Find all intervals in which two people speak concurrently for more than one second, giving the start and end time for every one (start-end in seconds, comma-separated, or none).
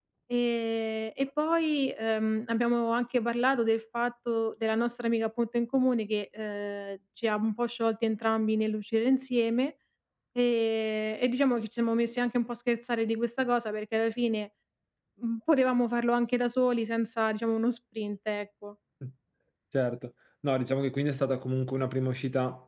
none